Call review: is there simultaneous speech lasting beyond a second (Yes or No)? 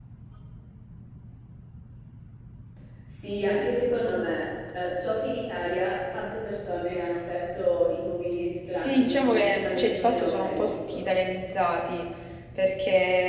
Yes